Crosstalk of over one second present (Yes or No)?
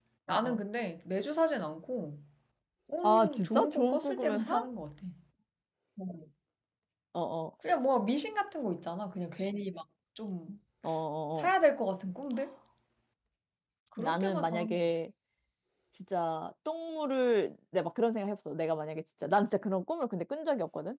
Yes